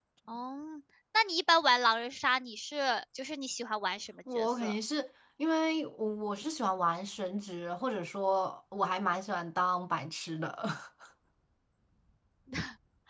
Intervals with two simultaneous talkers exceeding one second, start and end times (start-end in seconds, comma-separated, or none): none